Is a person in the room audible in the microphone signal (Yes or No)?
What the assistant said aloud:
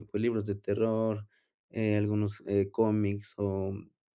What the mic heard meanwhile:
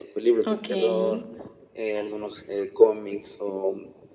Yes